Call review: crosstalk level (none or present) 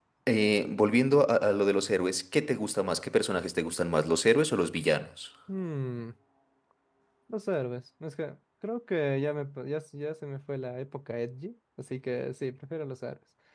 none